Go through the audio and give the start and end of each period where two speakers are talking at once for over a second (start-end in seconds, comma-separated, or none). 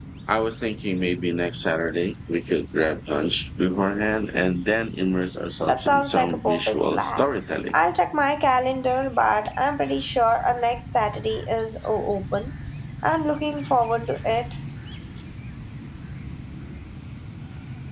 5.7-7.2